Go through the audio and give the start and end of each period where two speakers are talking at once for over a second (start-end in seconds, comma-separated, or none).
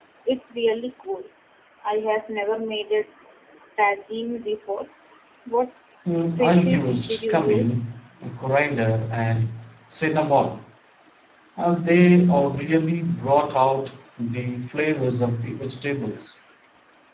6.2-7.9